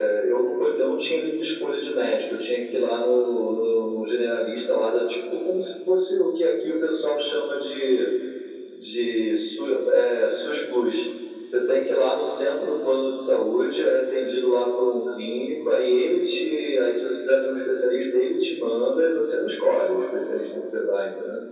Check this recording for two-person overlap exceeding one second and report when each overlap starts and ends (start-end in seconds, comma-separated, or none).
none